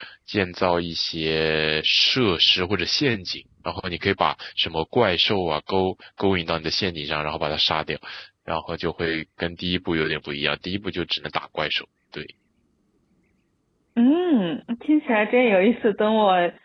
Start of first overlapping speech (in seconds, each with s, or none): none